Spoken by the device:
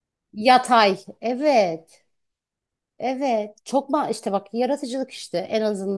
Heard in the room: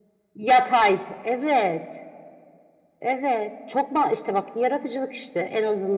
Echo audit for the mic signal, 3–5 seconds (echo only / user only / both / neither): echo only